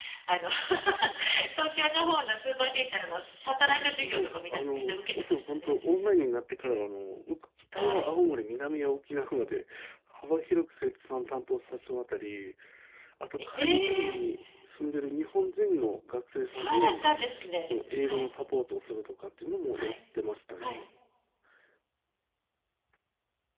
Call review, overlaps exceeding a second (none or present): present